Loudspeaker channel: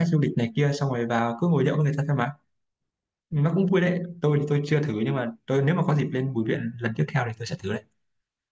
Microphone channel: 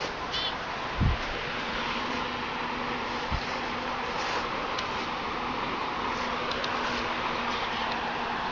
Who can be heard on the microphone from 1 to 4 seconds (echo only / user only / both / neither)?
neither